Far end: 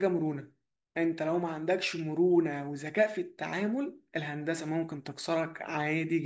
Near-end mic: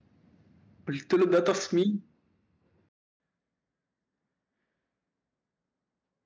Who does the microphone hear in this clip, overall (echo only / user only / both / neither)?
user only